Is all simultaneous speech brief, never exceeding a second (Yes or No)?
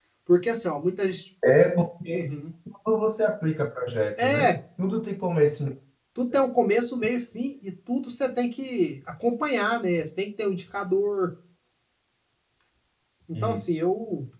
Yes